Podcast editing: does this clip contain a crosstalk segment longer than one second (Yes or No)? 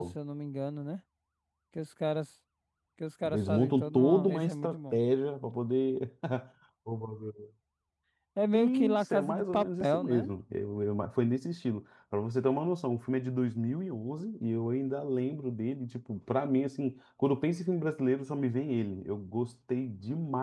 Yes